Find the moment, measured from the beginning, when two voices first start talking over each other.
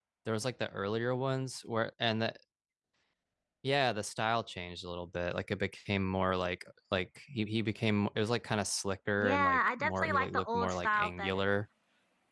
9.2 s

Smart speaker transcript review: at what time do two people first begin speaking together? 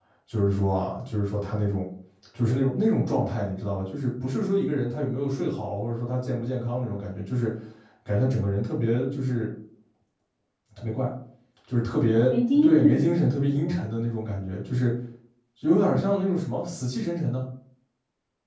12.2 s

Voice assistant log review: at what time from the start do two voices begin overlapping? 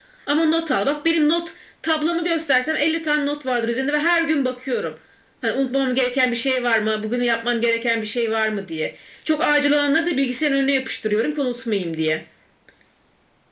none

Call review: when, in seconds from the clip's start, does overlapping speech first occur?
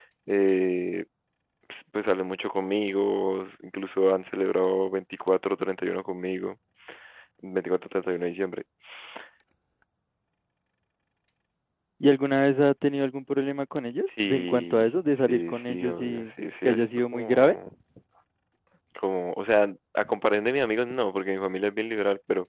14.1 s

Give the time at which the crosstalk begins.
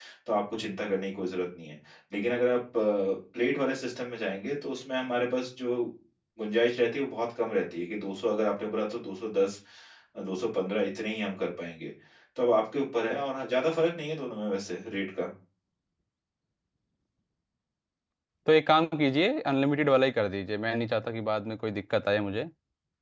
none

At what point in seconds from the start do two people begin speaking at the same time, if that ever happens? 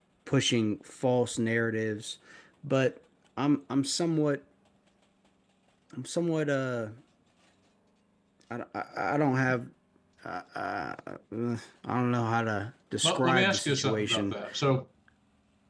13.0 s

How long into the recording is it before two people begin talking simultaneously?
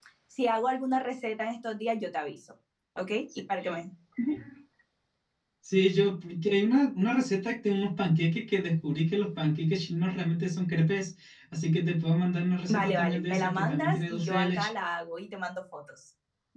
12.7 s

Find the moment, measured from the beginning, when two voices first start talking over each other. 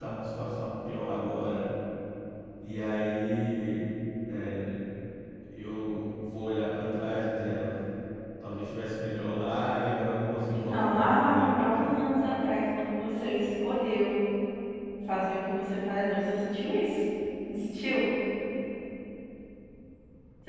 10.5 s

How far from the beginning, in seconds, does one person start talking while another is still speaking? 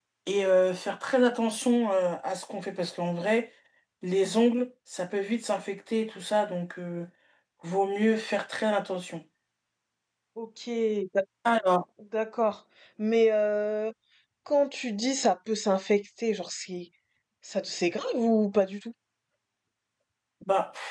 none

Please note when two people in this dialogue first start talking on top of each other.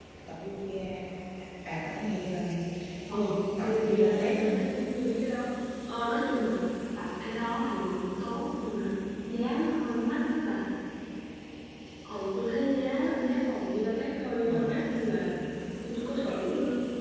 3.1 s

